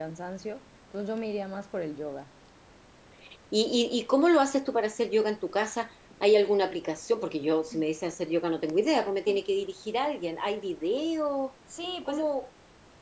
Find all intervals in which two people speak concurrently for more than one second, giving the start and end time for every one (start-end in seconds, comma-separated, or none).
none